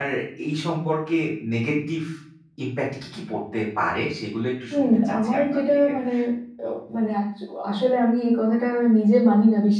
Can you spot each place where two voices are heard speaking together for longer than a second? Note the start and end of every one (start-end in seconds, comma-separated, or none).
4.7-5.9